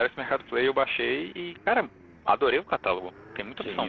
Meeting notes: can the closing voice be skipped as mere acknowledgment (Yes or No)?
No